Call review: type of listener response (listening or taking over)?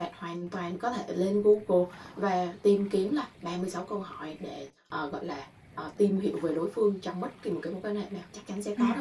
taking over